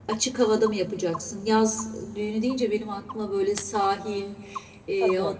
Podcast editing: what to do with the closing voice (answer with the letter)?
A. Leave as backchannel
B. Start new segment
A